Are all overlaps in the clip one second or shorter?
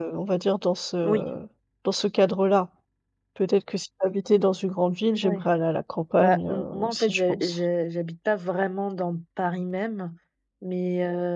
No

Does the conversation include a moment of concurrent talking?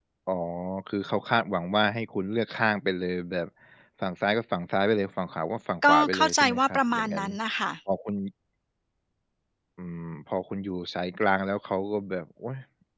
Yes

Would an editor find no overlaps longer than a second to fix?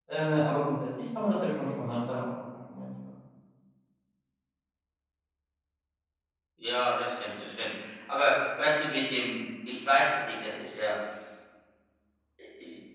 Yes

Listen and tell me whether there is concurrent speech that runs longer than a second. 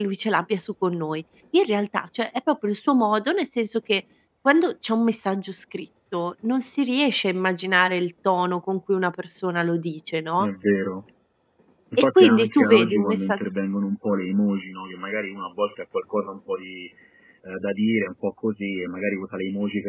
Yes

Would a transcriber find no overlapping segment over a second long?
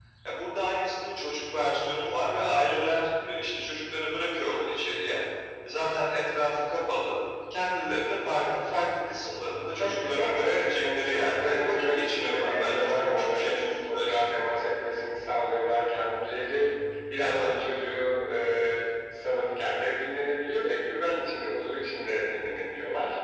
No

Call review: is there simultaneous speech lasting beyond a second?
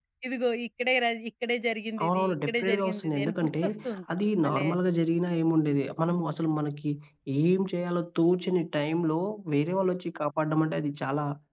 Yes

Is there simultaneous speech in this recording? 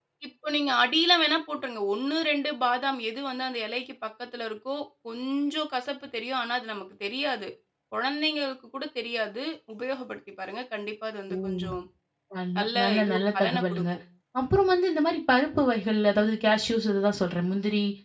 Yes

